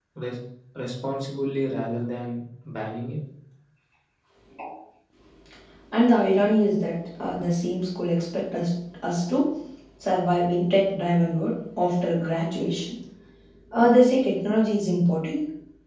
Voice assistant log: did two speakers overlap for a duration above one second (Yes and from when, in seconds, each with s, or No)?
No